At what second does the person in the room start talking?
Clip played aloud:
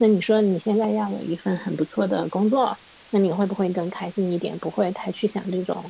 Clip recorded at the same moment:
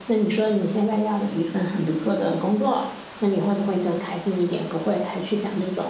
none

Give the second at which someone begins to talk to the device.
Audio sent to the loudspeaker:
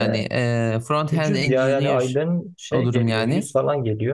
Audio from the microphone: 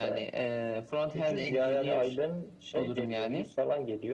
none

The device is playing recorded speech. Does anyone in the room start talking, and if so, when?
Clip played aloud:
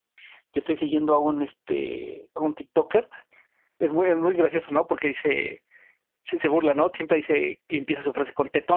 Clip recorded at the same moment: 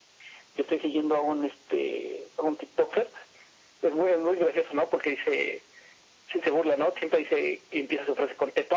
none

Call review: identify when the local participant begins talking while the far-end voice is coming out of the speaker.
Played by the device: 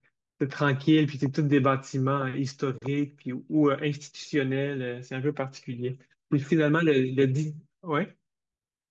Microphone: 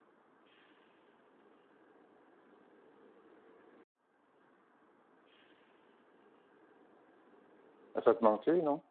8.0 s

